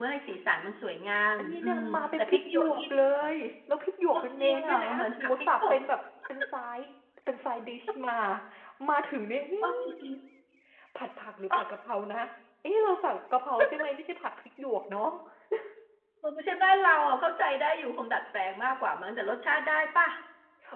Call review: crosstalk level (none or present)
present